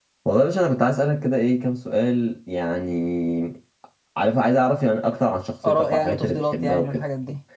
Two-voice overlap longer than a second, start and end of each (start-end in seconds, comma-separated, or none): 5.7-7.0